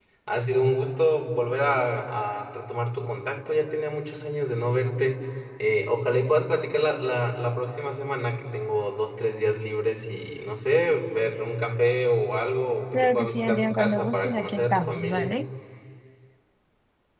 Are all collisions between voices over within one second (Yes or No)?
No